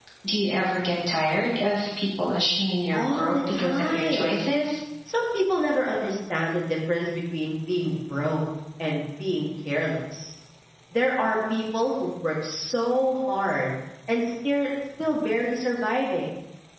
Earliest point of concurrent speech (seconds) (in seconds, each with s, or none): 2.9 s